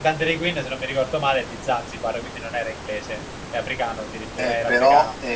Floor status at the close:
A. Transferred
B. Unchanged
A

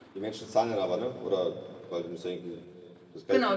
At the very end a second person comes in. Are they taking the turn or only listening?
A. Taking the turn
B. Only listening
A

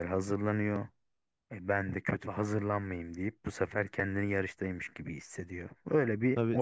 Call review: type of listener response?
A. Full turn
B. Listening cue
A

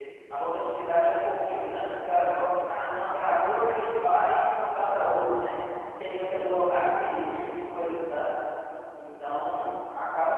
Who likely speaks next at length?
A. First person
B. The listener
A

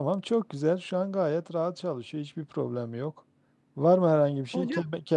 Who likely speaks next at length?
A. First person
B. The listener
A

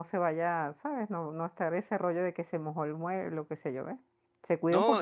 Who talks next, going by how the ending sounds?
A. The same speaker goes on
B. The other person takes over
B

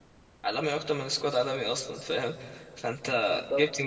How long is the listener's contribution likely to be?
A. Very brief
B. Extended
A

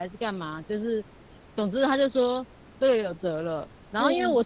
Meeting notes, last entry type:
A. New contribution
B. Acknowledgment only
B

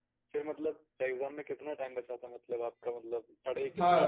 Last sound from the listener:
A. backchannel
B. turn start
B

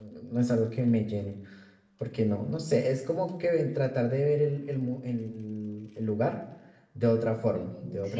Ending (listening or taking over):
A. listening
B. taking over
B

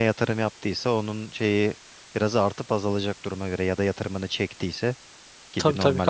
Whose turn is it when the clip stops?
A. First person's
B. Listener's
B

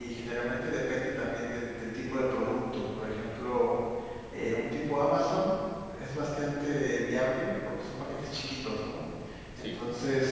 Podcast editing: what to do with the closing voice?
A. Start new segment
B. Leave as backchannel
B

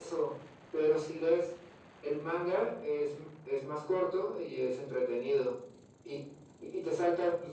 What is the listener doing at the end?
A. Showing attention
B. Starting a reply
A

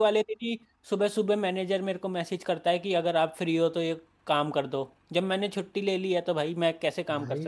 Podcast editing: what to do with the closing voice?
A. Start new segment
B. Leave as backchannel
A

